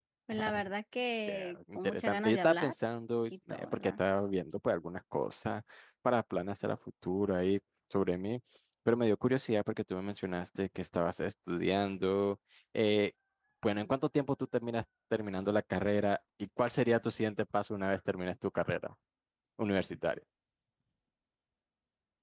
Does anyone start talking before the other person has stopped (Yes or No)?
Yes